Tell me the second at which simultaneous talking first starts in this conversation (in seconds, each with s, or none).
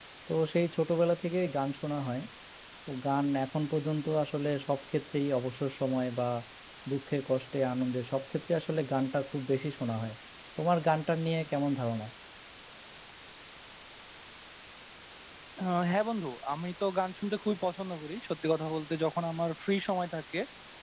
none